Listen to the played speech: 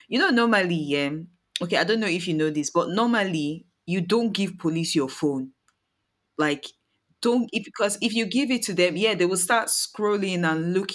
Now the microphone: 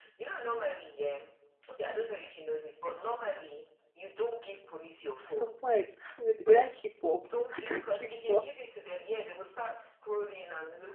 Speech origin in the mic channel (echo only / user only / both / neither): both